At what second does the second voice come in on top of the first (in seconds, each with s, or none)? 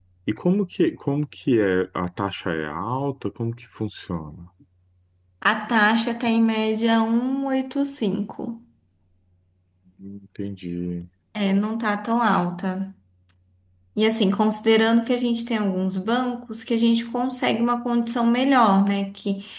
none